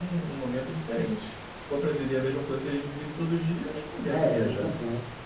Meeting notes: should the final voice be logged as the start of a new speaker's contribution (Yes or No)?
Yes